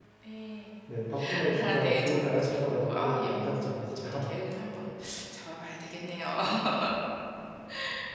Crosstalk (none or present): present